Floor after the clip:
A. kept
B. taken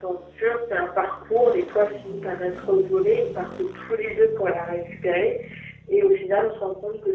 A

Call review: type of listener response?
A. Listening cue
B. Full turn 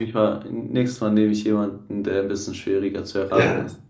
B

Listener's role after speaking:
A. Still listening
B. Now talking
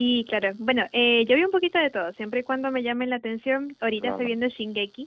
A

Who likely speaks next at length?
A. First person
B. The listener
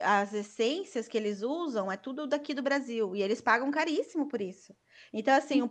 A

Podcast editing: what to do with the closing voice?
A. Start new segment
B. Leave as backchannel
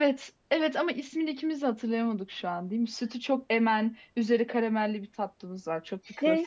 A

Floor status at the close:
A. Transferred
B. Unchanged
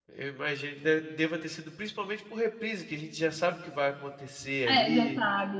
A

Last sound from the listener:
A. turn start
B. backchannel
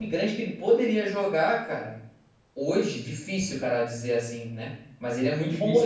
B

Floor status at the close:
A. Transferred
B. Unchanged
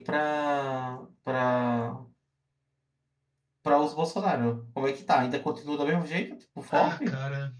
A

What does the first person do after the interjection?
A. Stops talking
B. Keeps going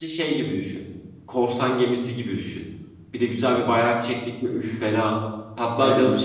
B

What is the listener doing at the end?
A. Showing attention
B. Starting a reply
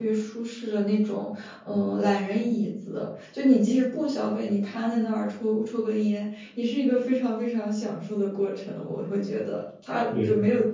A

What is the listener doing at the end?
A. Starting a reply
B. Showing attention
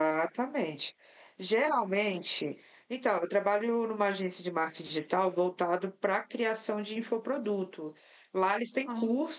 B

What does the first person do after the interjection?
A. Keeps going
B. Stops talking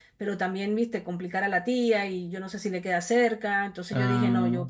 A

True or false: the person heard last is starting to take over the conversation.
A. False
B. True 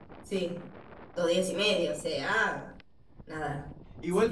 B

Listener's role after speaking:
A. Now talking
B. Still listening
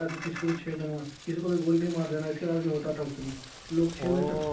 B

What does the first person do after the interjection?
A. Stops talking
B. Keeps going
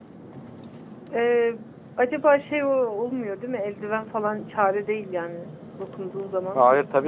A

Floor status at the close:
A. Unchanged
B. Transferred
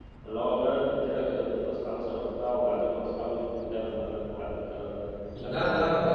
B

